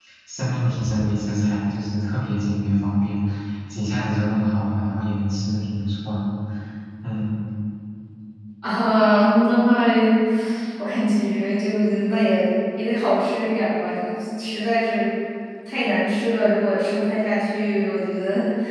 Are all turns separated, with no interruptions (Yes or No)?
Yes